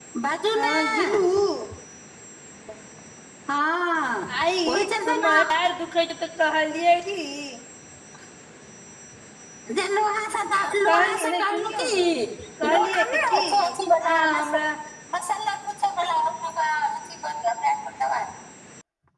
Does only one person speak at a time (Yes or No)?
No